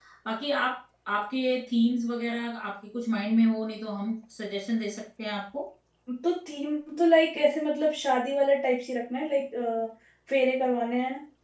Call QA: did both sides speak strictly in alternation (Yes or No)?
Yes